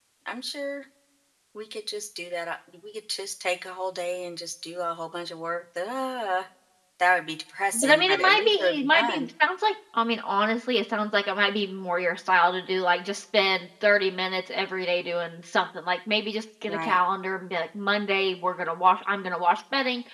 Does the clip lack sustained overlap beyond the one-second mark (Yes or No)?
No